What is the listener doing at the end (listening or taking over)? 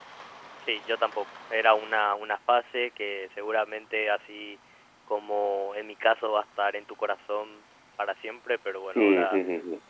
taking over